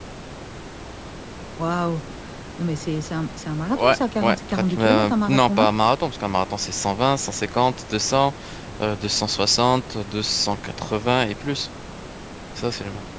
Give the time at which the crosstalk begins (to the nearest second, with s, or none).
4 s